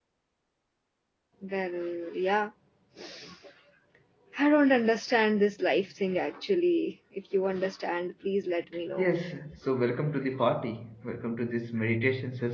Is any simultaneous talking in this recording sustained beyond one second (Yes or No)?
No